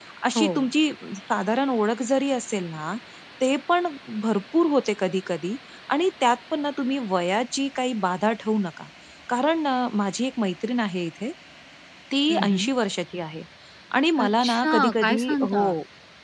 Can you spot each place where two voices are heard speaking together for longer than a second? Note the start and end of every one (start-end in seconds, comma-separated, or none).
14.2-15.6